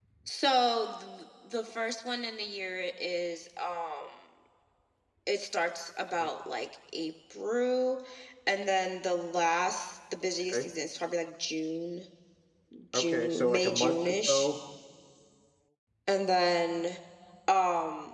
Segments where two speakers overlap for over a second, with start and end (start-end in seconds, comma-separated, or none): 12.9-14.5